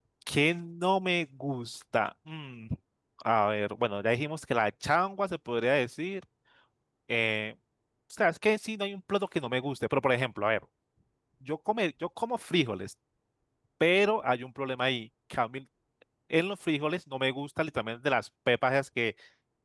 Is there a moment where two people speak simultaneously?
No

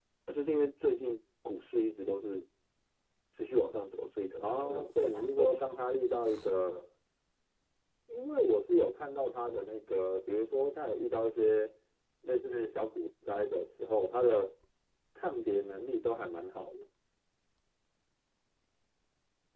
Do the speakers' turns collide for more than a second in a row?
Yes, from 4.4 s

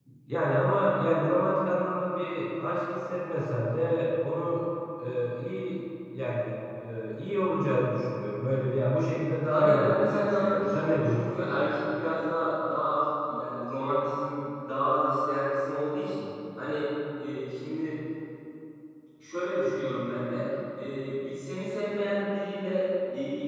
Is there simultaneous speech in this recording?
Yes, from 9.4 s

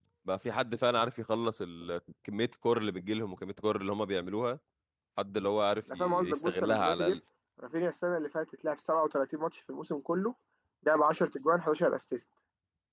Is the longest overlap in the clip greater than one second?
Yes, from 5.9 s

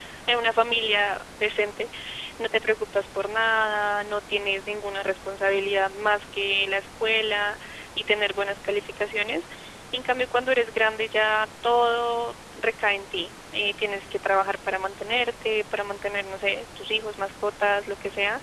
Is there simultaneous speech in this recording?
No

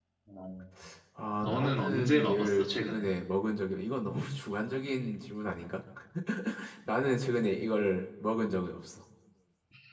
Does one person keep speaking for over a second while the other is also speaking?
Yes, from 1.4 s

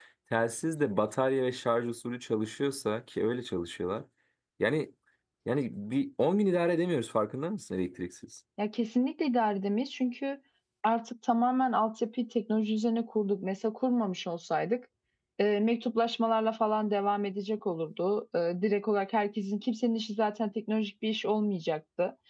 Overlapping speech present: No

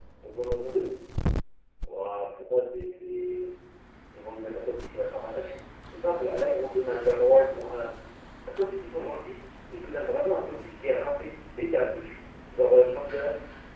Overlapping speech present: No

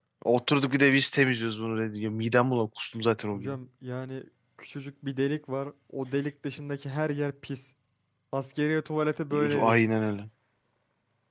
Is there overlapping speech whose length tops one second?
No

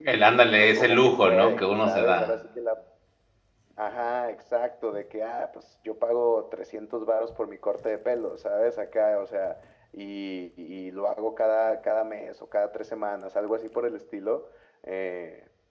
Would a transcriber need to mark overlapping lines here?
Yes, from 0.6 s

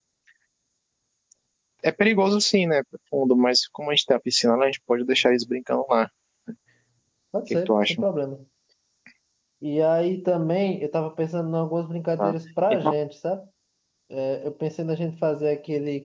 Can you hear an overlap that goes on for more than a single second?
No

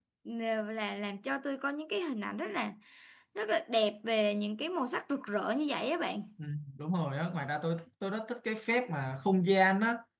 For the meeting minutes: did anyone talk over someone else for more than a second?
No

